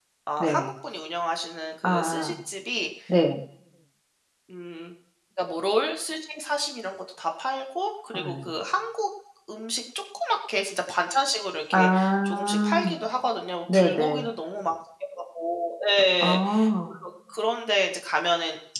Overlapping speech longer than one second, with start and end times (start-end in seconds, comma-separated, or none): 11.7-13.0